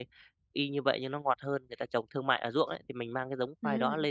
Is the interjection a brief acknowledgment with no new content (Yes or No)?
Yes